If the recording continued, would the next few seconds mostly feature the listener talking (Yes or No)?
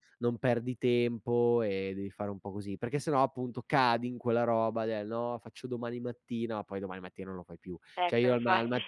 No